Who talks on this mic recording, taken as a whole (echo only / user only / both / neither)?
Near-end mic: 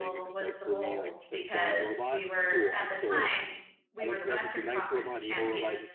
both